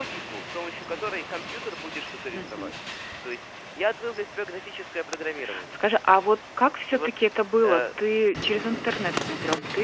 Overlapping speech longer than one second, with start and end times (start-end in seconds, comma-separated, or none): none